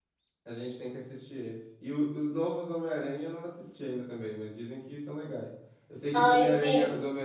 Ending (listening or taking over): listening